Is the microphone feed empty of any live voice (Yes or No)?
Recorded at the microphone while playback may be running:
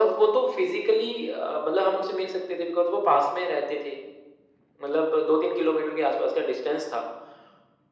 Yes